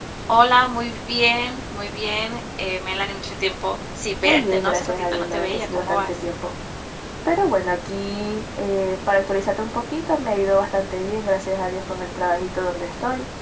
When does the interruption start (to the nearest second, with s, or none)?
4 s